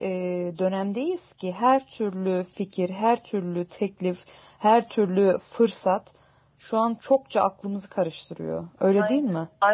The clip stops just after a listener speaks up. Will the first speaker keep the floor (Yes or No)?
No